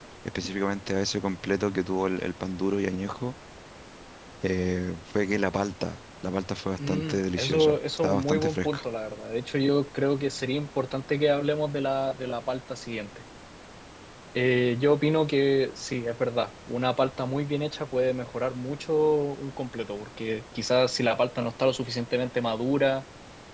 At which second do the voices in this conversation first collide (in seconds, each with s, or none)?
6.8 s